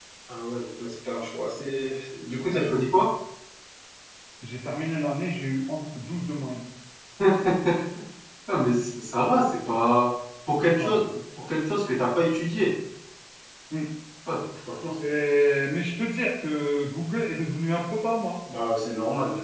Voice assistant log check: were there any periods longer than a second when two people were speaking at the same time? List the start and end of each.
none

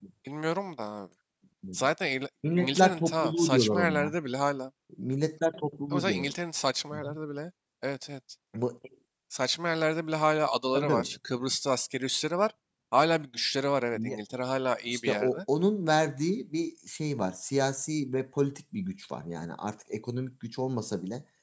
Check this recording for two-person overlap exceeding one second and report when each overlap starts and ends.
2.5-4.2

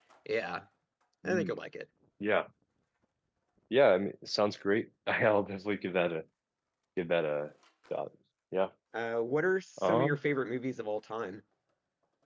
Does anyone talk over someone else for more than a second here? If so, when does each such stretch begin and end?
none

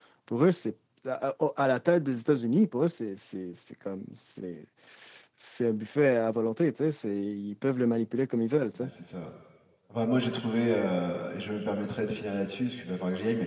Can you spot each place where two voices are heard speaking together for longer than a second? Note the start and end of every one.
none

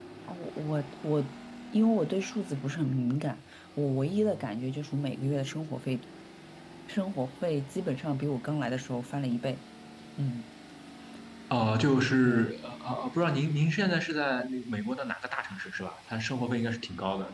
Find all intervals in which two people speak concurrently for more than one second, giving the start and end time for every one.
none

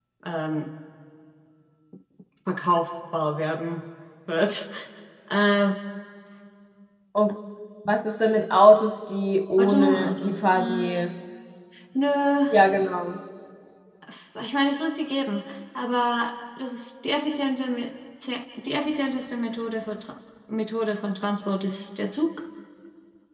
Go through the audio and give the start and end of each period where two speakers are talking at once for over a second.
9.6-11.1

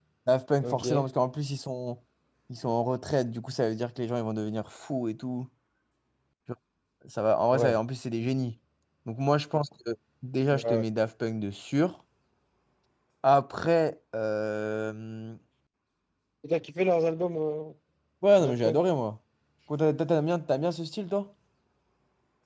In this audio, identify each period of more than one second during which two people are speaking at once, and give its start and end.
none

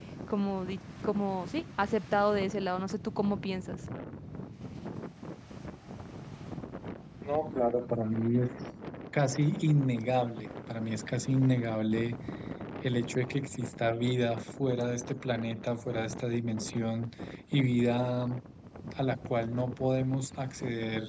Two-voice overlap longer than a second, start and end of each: none

